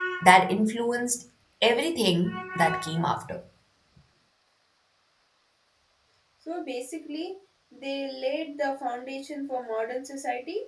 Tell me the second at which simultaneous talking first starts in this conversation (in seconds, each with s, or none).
none